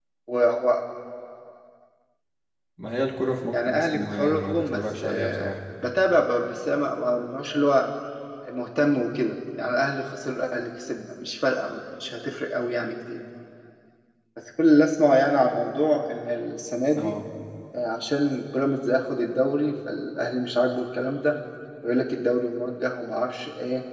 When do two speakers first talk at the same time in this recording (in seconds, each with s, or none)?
3.5 s